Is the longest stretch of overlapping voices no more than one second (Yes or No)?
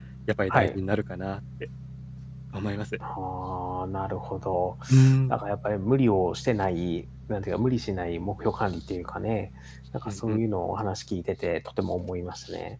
Yes